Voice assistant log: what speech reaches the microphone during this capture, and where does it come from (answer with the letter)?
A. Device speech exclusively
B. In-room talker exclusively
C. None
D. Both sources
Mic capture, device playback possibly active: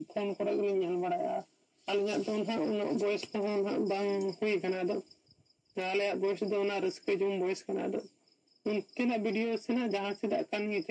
A